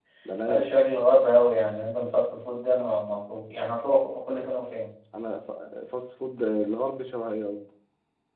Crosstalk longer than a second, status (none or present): none